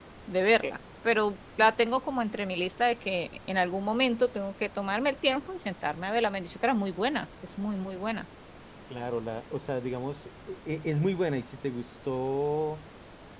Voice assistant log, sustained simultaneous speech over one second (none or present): none